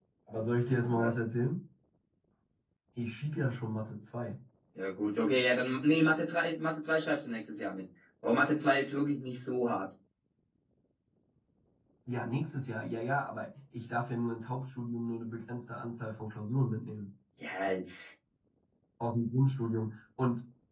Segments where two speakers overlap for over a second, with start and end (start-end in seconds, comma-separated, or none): none